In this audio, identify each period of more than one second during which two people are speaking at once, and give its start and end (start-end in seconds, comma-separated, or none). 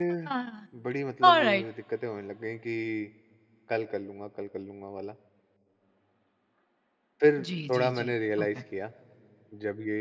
7.4-8.6